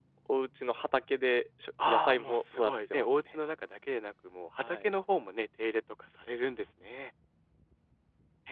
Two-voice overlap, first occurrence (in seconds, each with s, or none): 1.9 s